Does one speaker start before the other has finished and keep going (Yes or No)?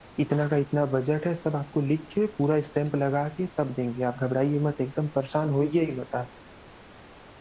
No